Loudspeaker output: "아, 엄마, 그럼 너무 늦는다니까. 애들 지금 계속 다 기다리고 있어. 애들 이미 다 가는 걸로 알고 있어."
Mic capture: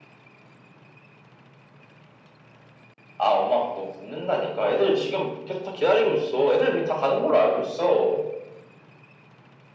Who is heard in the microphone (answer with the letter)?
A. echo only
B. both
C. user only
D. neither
A